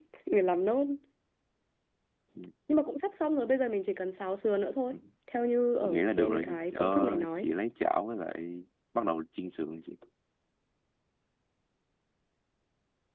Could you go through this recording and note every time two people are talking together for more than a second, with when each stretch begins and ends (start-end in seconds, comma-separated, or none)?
5.8-7.5